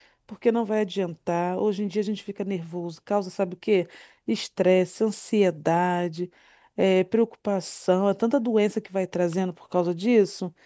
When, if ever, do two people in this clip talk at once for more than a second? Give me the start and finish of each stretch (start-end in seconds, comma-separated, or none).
none